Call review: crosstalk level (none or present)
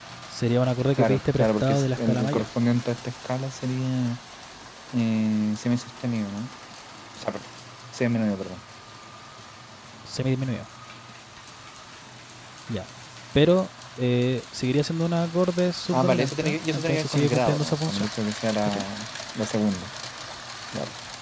present